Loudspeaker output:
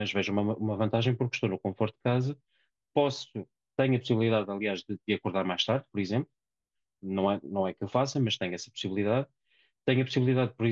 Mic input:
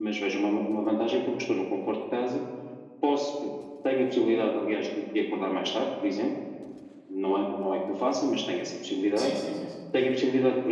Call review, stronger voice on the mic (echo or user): echo